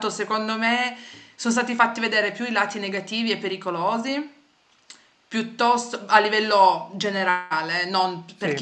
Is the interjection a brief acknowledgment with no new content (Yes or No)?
Yes